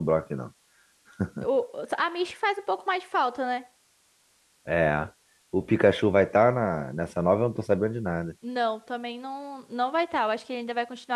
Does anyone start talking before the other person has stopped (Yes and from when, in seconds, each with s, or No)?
No